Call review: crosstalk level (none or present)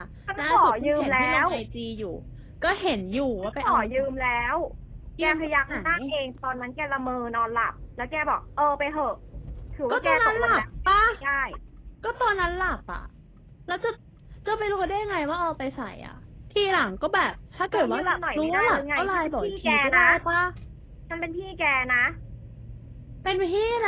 present